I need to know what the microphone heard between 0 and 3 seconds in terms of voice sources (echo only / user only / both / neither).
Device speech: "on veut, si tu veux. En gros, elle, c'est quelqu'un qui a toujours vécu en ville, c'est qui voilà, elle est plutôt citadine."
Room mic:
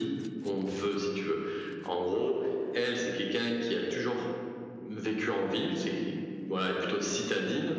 echo only